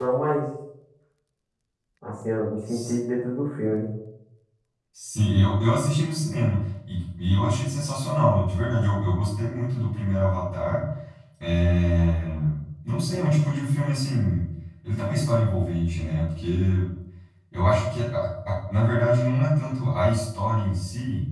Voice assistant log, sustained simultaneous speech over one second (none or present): none